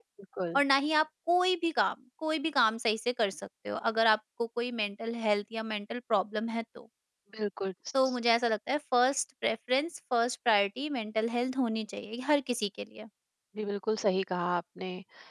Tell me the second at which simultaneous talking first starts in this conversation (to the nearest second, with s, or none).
none